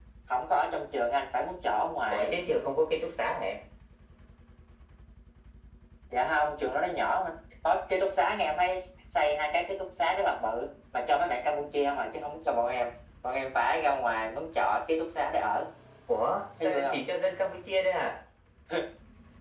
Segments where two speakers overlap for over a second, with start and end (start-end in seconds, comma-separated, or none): none